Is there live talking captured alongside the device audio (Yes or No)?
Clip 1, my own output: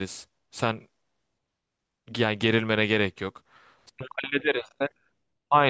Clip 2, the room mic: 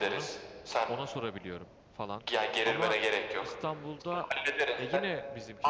Yes